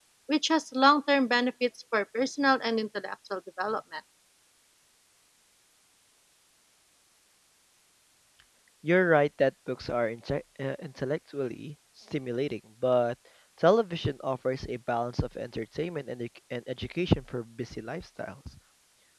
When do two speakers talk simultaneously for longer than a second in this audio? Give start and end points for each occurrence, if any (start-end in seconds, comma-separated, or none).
none